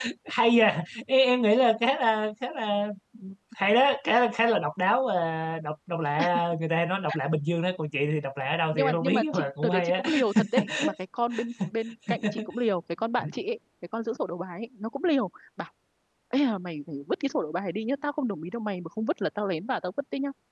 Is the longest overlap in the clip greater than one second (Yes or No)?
Yes